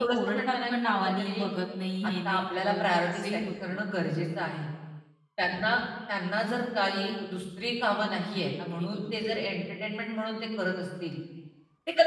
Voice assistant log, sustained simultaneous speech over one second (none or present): present